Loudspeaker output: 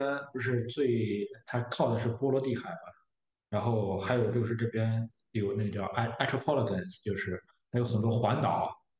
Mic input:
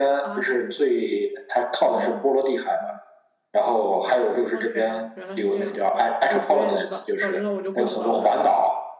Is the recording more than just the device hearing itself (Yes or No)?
Yes